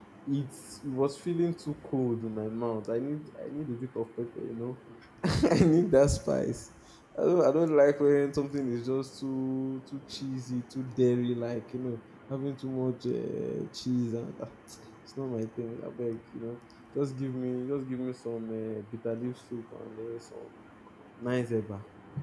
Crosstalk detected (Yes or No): No